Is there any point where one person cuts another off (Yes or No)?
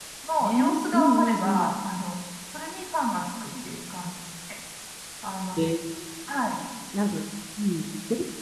Yes